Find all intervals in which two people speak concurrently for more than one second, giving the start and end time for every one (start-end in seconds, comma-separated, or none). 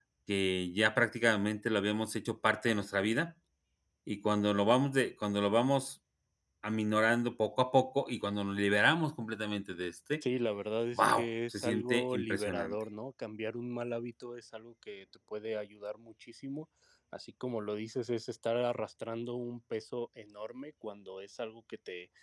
10.9-12.8